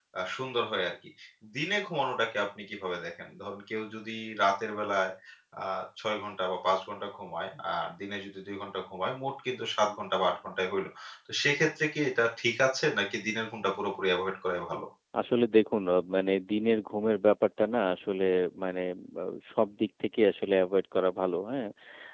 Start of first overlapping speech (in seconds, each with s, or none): none